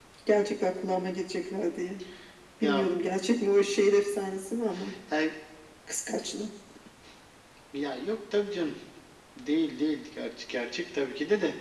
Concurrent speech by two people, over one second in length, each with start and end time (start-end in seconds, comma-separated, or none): none